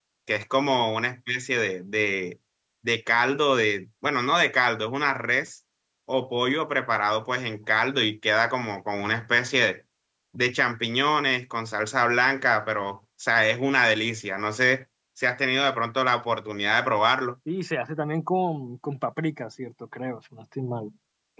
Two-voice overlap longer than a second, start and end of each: none

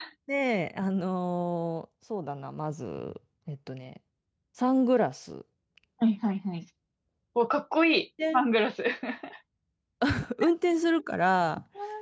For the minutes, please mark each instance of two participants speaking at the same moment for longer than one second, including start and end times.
none

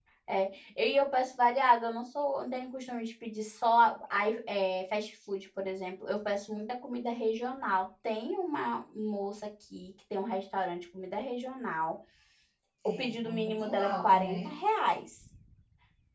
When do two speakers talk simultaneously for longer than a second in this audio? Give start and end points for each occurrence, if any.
12.8-14.6

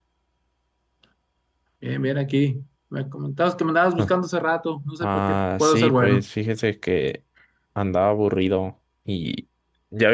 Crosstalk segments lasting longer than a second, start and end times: 5.0-6.2

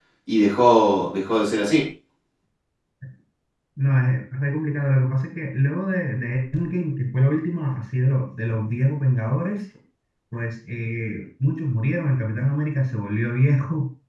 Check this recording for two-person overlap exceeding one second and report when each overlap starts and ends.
none

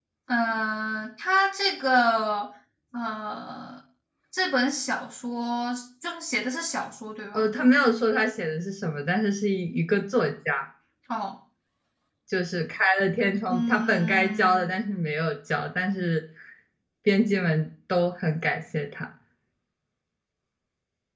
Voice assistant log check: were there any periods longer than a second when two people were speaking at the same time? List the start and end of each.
13.5-14.7

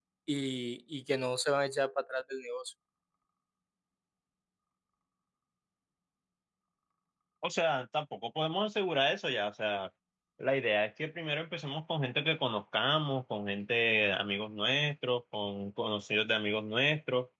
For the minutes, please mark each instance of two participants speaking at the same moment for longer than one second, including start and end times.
none

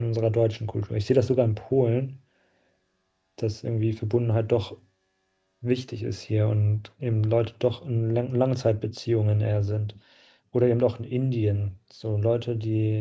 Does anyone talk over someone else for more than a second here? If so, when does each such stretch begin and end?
none

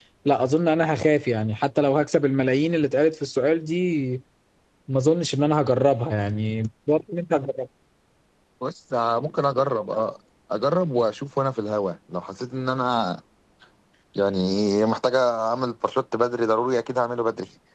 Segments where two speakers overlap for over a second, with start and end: none

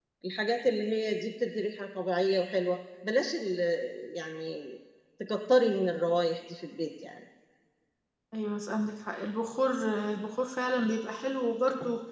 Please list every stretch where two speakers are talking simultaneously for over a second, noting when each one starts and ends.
none

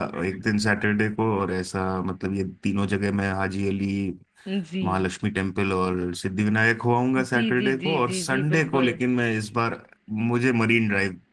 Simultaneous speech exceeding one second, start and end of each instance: 7.2-8.9

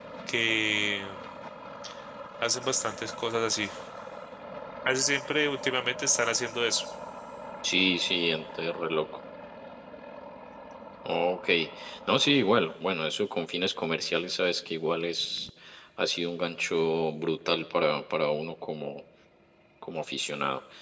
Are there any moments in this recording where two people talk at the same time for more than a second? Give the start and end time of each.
none

